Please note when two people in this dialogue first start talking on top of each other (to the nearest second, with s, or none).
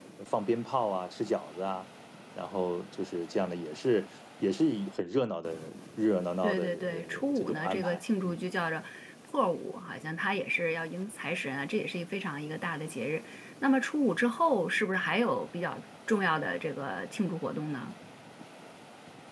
6 s